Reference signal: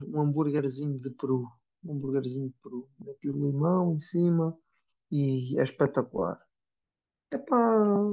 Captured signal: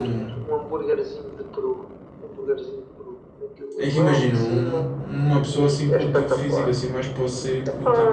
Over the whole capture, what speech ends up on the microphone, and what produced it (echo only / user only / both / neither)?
both